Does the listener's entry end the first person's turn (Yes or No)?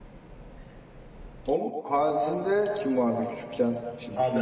Yes